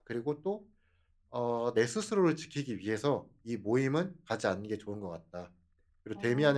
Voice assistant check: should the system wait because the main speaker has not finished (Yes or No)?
Yes